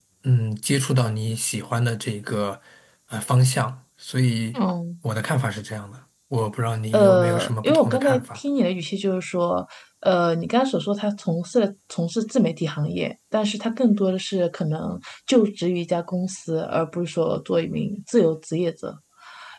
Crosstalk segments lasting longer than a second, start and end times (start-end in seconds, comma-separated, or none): 6.9-8.4